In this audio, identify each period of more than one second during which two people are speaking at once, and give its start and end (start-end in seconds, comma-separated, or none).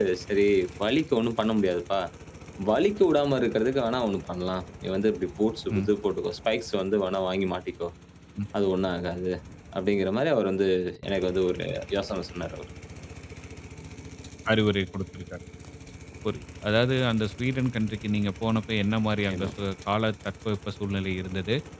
none